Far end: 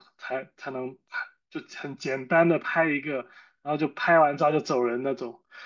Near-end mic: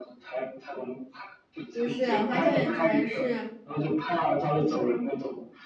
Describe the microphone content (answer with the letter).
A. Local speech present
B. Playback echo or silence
A